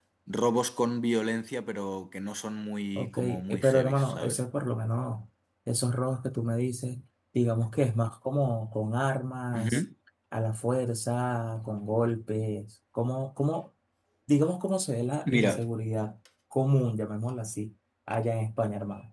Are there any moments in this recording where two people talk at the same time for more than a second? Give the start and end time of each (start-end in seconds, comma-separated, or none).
3.0-4.4